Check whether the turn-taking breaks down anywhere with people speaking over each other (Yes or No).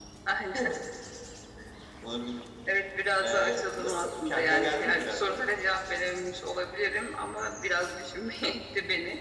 Yes